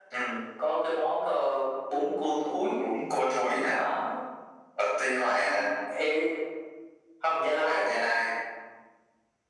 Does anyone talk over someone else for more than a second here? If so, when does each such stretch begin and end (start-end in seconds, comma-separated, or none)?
none